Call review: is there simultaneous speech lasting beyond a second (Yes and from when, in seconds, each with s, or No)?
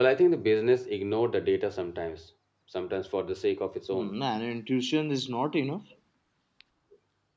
No